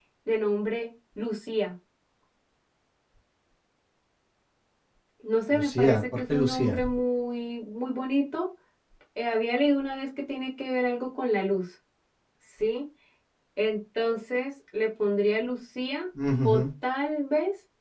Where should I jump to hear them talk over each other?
5.5 s

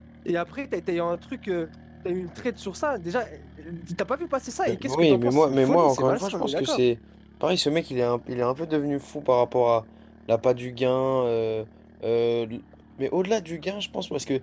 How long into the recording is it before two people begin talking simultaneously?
4.7 s

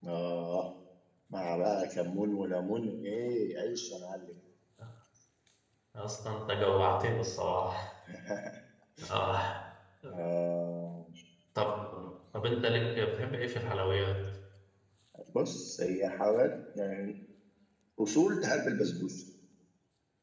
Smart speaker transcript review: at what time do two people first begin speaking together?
none

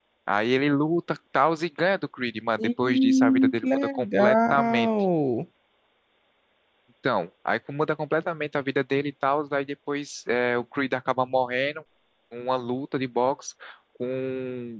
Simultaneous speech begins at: 2.6 s

